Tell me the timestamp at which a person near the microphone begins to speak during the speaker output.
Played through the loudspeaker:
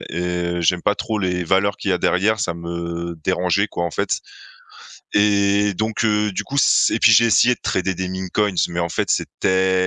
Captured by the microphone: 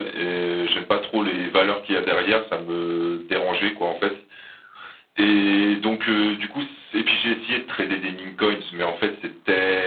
none

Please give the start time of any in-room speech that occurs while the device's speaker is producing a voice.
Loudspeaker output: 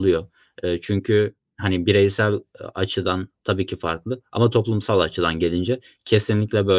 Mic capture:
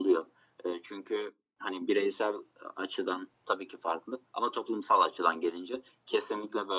none

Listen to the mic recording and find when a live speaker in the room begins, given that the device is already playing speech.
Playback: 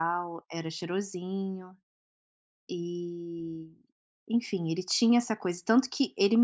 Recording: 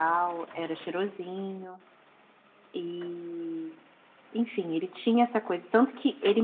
none

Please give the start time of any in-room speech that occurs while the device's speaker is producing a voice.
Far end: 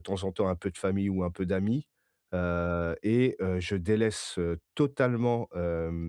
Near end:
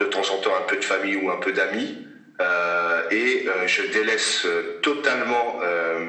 none

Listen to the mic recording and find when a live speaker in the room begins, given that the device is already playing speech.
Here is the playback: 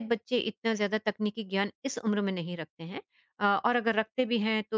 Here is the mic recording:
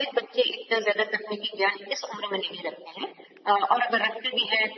none

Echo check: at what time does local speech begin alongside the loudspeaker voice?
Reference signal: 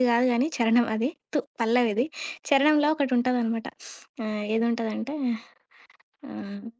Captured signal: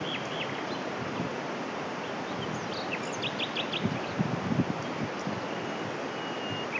none

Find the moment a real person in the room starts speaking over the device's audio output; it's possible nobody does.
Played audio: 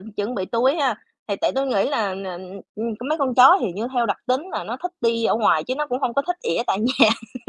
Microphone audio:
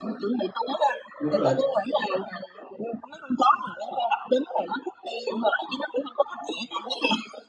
1.2 s

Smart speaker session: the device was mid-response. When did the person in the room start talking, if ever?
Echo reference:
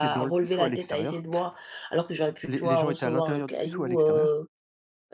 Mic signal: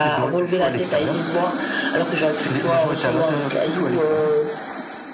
none

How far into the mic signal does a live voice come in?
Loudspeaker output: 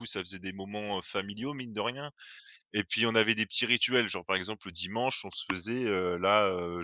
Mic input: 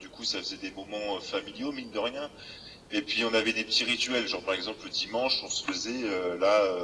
none

